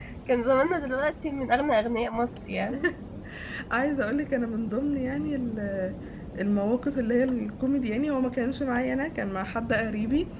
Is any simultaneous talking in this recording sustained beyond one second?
No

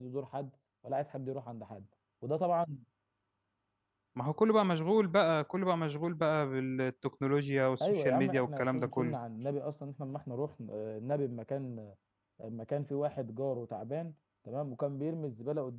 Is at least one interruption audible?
Yes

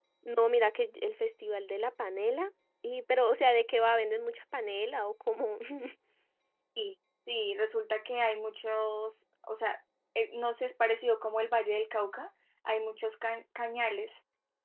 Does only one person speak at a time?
Yes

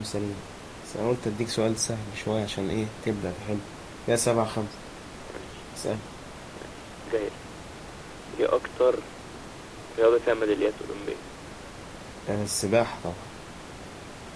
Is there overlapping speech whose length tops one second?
No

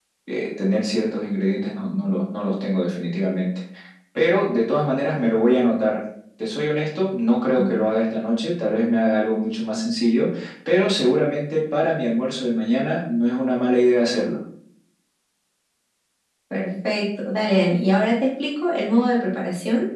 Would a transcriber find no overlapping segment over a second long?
Yes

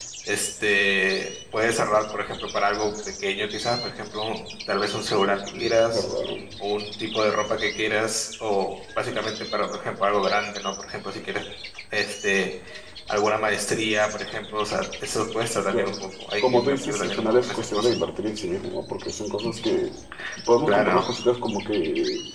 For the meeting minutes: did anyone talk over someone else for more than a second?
Yes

